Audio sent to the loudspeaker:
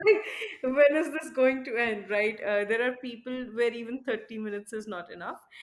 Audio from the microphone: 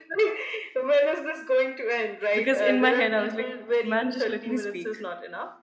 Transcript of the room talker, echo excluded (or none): Because in my head, I was like, man, just let me speak.